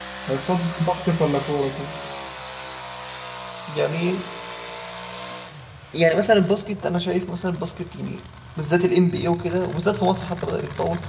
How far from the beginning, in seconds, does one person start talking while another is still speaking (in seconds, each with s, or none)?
none